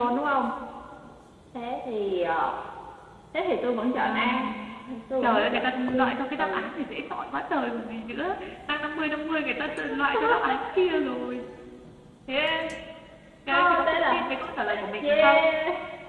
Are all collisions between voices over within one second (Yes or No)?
No